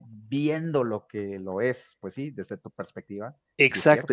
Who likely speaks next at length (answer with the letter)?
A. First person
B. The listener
B